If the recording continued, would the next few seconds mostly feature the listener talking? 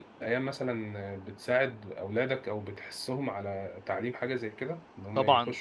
Yes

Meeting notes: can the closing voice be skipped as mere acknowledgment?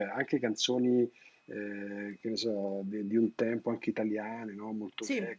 Yes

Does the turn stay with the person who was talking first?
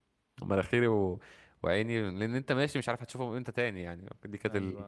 No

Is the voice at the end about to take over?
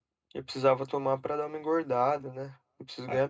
Yes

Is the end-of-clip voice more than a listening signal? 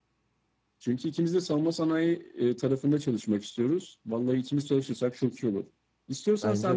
No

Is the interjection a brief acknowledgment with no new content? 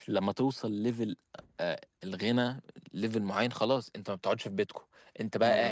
Yes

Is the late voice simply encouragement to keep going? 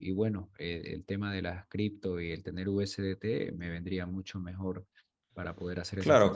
No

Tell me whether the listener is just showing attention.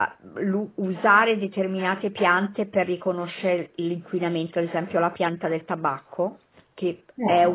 Yes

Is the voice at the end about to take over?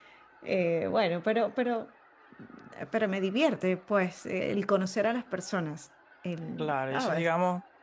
Yes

